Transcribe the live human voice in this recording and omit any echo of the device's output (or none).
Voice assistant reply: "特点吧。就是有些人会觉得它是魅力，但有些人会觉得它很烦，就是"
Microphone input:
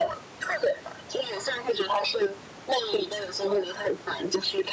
none